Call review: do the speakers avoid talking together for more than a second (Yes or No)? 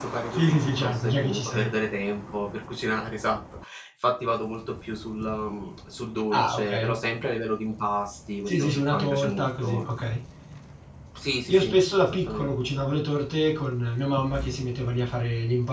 No